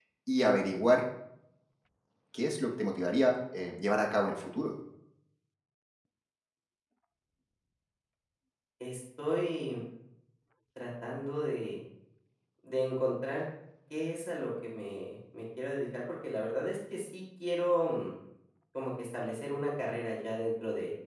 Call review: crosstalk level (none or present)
none